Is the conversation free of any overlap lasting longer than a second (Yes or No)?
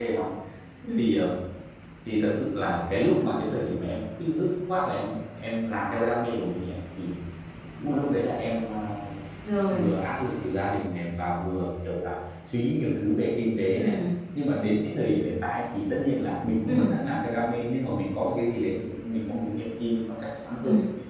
Yes